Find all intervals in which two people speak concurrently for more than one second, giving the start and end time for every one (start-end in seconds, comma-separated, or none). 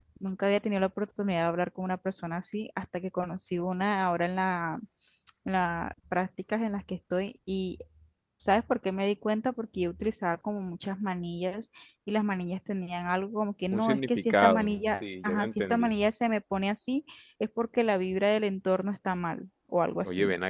13.7-15.9